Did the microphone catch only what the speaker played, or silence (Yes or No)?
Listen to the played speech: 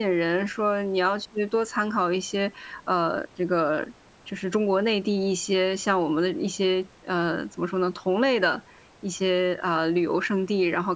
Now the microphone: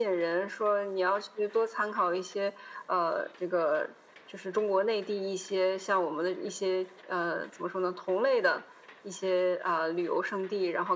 Yes